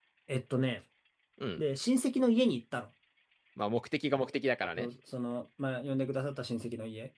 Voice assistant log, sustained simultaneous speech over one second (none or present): none